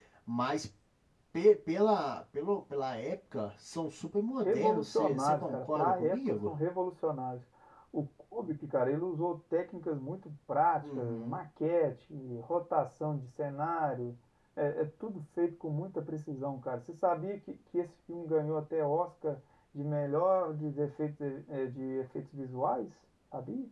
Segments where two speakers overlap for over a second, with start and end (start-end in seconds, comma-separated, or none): 4.4-6.5